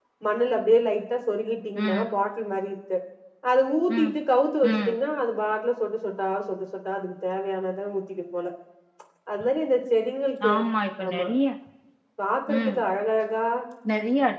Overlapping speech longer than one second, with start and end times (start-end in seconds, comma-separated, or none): none